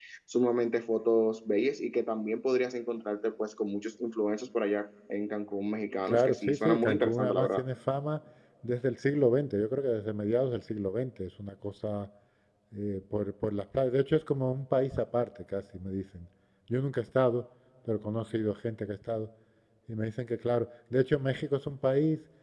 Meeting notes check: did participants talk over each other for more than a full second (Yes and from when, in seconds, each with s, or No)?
Yes, from 6.1 s